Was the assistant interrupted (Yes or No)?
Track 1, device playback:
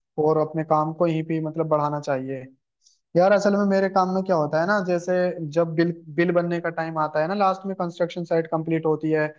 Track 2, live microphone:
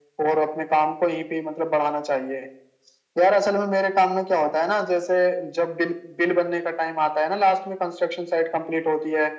No